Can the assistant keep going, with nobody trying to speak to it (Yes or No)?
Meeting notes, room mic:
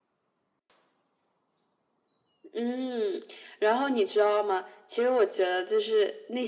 Yes